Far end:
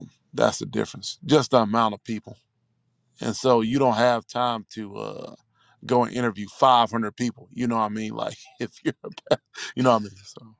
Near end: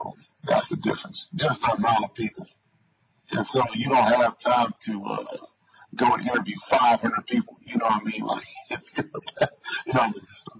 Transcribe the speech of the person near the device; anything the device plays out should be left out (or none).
none